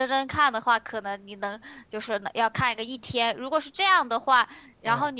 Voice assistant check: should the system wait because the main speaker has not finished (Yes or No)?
Yes